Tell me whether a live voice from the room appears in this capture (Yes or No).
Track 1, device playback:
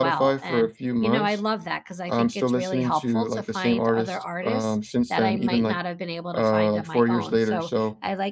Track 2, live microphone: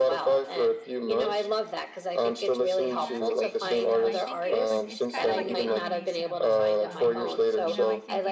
Yes